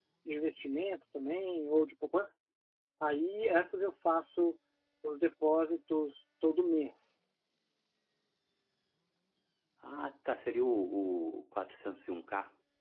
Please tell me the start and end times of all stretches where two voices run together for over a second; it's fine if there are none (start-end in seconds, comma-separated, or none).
none